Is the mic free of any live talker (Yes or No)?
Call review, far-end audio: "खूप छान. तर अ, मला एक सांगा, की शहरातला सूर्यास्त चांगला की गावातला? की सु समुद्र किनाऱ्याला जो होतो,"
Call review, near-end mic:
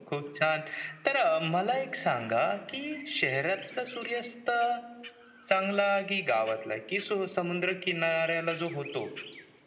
Yes